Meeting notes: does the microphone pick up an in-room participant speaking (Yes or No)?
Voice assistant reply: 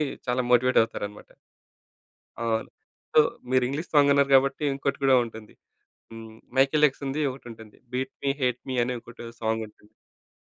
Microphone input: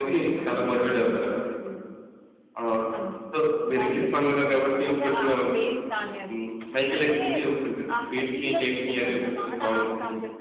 Yes